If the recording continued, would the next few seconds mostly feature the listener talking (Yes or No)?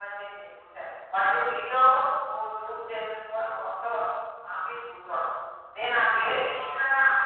No